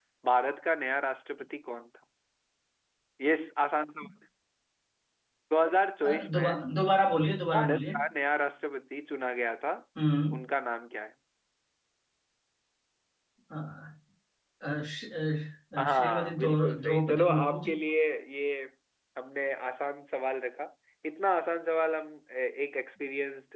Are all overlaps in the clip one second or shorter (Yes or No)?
No